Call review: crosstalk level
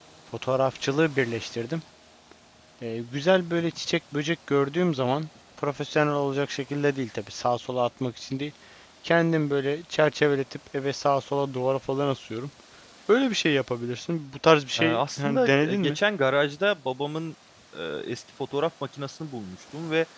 present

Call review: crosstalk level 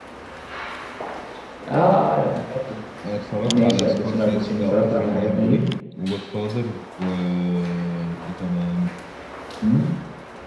present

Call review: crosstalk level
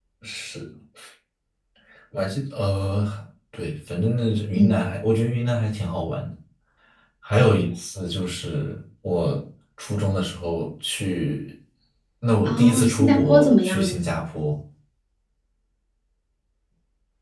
present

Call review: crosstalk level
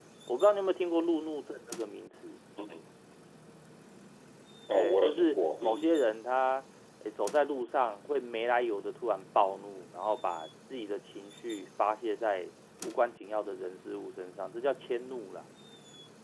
present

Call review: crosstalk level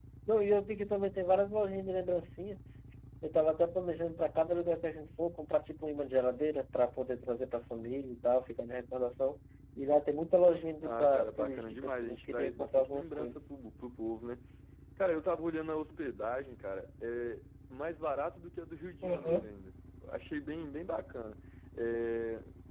present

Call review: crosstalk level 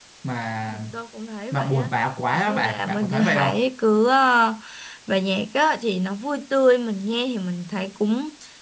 present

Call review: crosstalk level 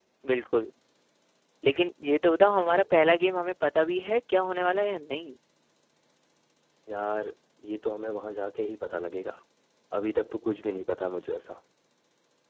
none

